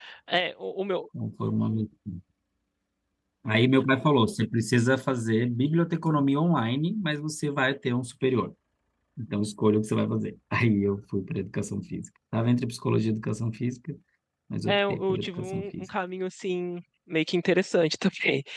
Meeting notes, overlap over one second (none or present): present